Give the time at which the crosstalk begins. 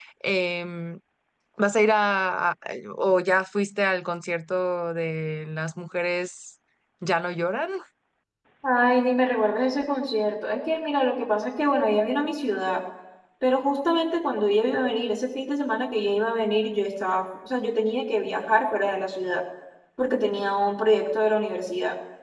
none

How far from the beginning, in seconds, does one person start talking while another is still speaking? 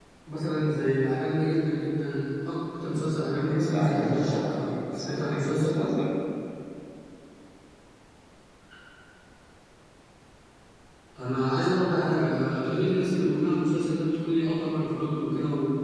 4 s

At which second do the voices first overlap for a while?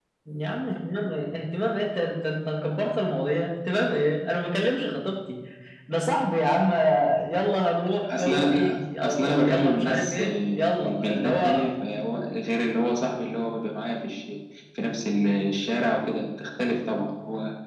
8 s

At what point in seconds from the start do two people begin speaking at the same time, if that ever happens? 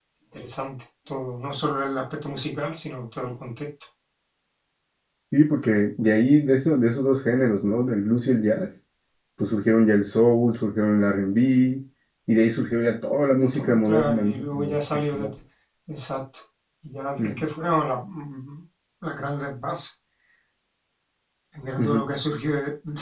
14 s

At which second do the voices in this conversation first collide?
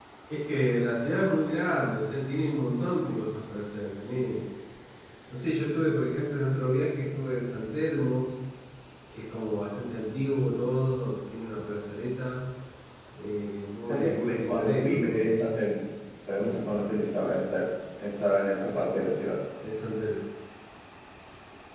14 s

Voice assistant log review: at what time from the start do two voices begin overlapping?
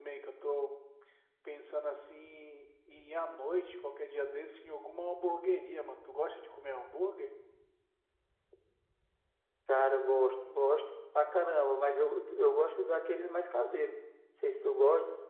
none

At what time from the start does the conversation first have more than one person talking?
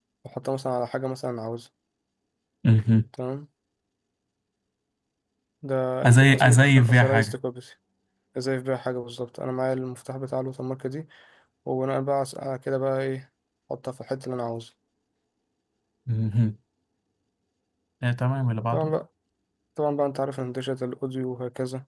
6 s

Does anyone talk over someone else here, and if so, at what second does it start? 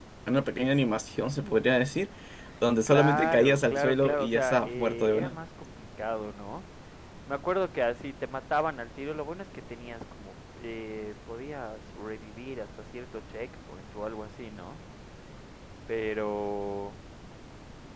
3 s

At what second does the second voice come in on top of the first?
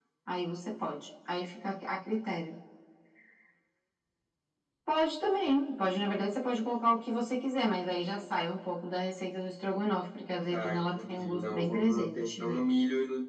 11 s

